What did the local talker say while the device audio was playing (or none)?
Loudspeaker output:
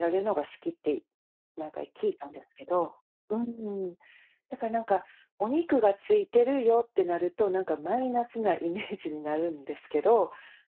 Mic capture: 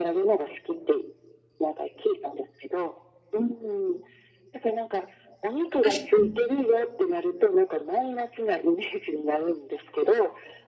確かに。